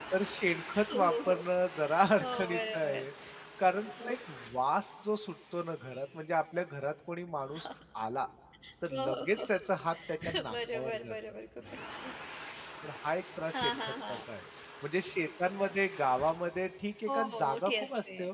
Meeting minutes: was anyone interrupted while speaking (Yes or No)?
Yes